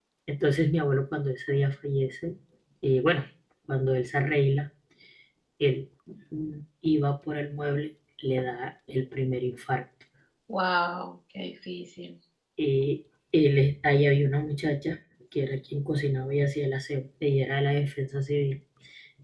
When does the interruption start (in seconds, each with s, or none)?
none